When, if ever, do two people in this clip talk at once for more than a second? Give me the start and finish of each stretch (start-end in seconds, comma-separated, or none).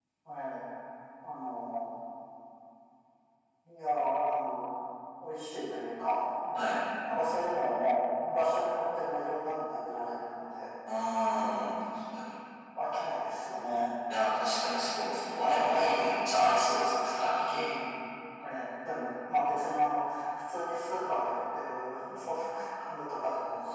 none